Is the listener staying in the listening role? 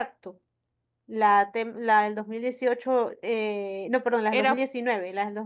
Yes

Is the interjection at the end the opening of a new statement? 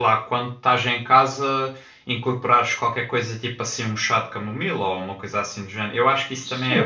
Yes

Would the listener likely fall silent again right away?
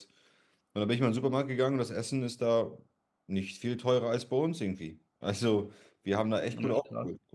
Yes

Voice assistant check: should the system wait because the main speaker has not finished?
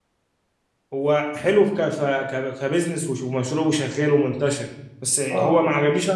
Yes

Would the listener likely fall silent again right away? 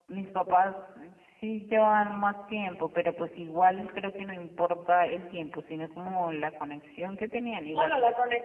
No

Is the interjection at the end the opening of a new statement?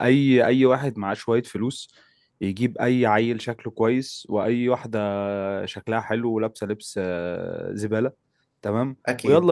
No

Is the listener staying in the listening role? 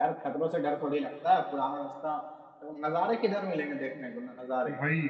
No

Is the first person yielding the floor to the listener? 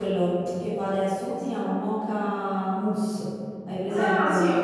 Yes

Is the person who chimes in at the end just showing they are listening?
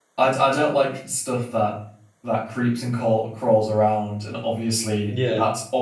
Yes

